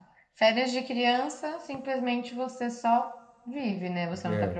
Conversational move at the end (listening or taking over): listening